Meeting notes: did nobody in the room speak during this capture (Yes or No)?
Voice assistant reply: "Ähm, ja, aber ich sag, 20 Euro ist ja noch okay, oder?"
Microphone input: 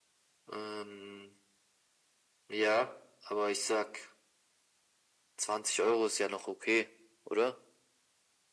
Yes